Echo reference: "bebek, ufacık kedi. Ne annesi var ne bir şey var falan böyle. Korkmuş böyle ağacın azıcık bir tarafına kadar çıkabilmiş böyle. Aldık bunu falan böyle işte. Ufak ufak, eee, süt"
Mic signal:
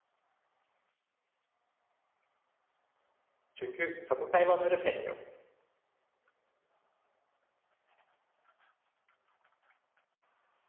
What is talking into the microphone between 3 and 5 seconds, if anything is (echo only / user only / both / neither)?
user only